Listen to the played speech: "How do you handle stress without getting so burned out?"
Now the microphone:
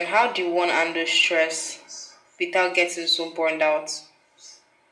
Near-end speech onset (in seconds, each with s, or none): none